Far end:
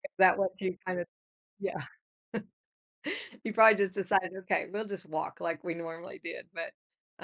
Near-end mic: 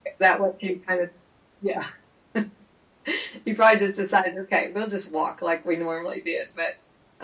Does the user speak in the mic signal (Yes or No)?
No